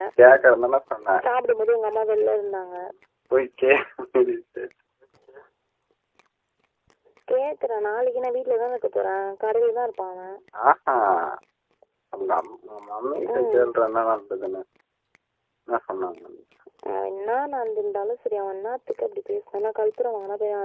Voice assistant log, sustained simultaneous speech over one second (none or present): none